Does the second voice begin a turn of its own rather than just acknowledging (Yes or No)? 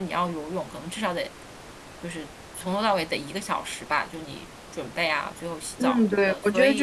Yes